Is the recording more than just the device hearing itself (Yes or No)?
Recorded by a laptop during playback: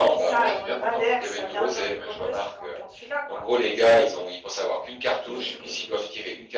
No